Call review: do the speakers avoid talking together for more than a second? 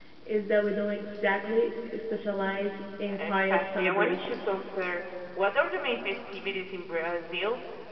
No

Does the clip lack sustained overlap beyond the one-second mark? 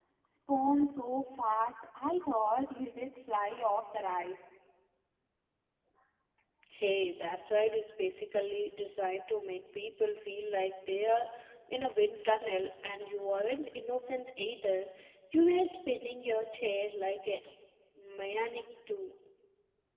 Yes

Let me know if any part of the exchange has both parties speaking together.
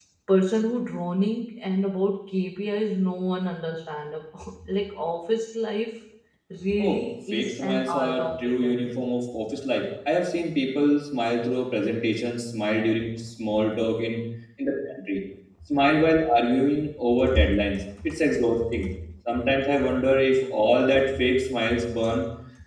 Yes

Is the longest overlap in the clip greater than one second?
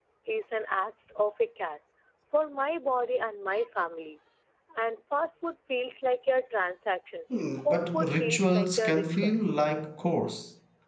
Yes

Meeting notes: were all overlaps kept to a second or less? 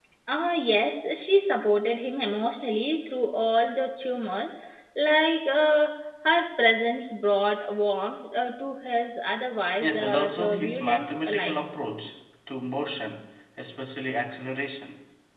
No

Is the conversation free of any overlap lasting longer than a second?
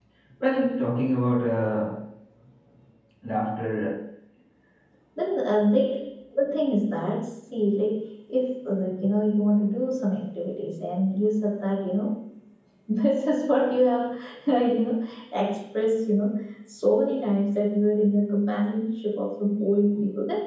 Yes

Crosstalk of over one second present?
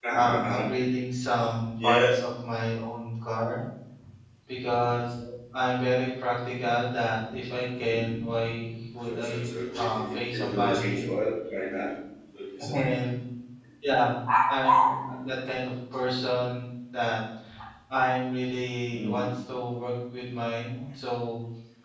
Yes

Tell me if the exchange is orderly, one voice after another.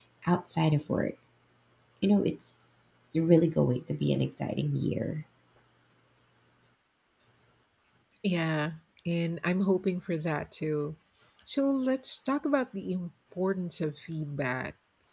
Yes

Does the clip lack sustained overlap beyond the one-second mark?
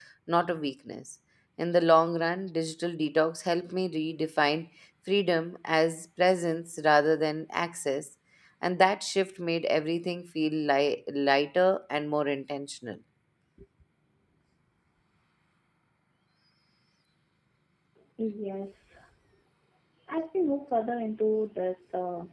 Yes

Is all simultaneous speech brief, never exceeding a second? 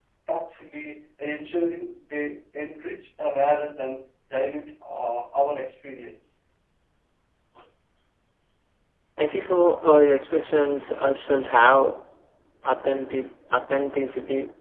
Yes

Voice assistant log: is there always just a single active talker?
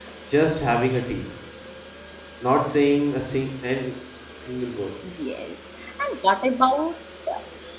Yes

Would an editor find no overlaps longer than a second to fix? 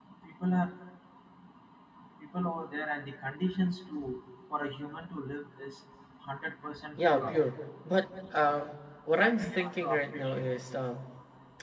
No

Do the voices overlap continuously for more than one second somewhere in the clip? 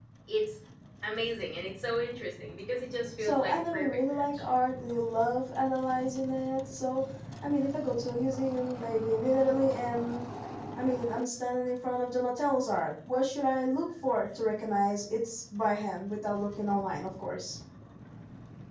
Yes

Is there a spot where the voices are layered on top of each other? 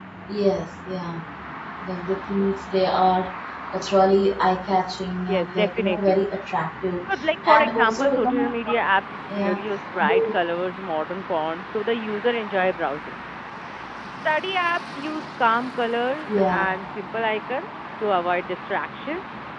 Yes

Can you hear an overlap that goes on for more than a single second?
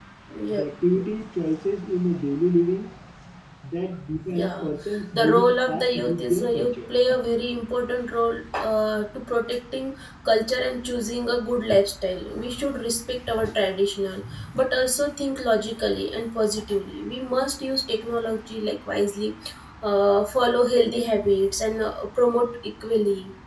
Yes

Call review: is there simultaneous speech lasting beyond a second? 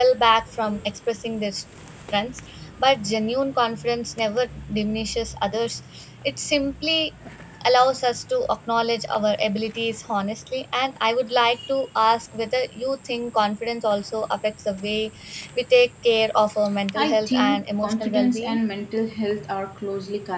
Yes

